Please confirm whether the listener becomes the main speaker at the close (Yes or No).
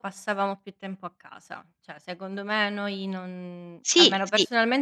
No